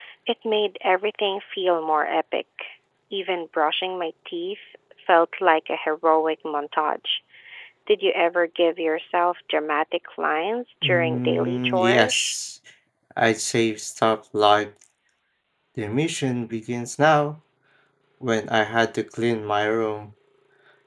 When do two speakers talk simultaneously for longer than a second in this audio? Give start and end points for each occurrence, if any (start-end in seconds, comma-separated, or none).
10.8-12.3